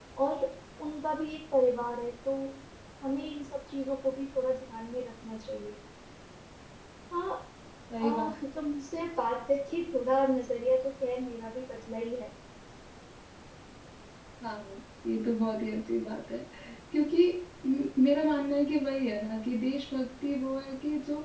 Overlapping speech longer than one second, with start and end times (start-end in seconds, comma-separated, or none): none